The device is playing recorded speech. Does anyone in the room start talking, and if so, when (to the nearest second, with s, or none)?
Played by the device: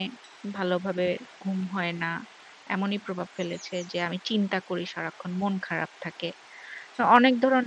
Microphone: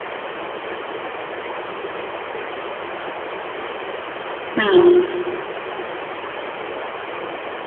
5 s